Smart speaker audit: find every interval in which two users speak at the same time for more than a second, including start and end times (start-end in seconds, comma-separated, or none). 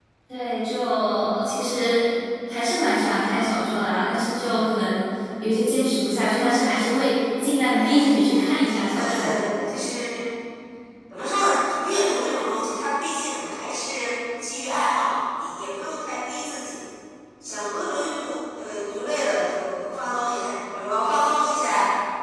7.7-9.4